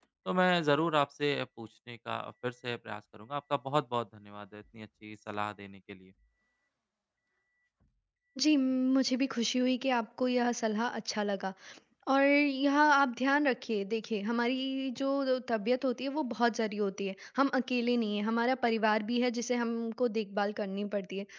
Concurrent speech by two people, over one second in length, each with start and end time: none

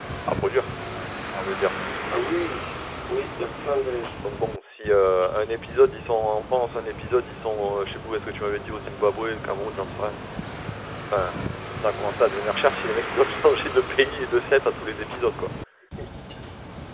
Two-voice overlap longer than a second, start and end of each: none

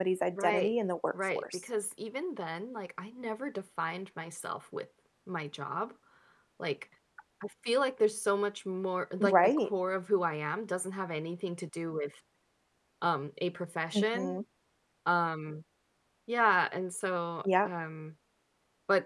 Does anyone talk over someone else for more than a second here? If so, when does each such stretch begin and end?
none

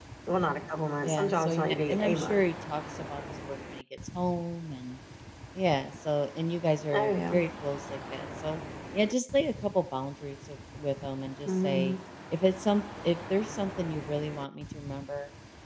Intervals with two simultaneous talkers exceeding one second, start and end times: 1.0-2.4

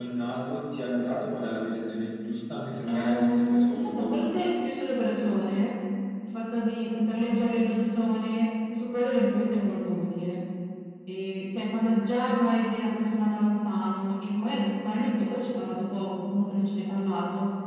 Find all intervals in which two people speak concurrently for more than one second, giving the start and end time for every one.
2.9-4.3

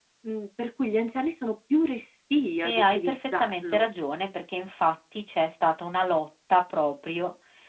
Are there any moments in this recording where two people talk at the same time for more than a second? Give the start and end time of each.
2.6-3.9

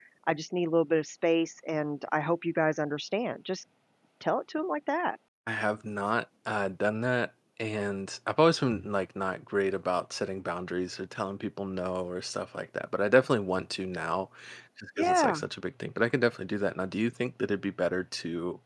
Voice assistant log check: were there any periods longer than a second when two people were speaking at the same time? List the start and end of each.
none

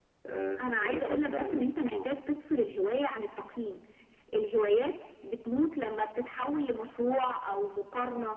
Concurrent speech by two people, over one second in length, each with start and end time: 0.6-2.1

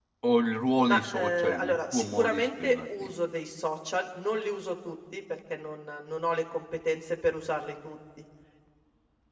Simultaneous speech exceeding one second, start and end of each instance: 0.8-3.1

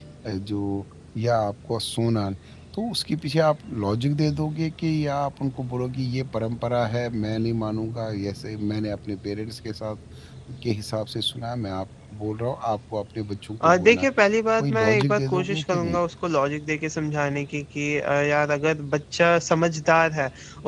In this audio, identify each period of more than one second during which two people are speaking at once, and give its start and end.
14.6-16.0

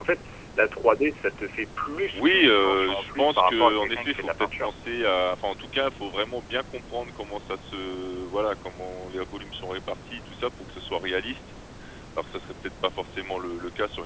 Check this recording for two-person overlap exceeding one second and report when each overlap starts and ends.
2.1-4.7

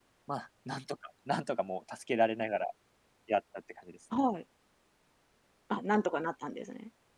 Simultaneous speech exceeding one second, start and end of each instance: none

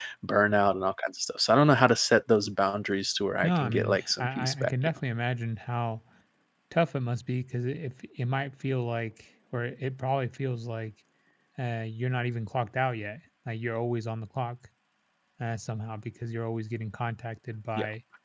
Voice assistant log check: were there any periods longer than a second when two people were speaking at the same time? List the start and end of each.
3.4-5.0

